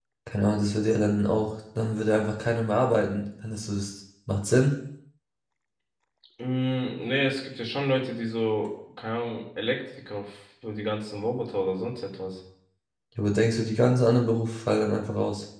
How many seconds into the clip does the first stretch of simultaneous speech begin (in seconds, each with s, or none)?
none